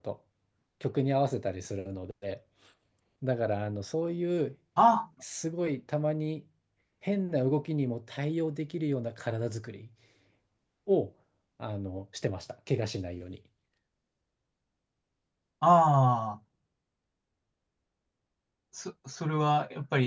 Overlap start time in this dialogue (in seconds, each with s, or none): none